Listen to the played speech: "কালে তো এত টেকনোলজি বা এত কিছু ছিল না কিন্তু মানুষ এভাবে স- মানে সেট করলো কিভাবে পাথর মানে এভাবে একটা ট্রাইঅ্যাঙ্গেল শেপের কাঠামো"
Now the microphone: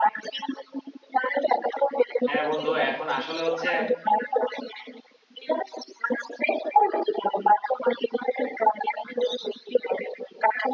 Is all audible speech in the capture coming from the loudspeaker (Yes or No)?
No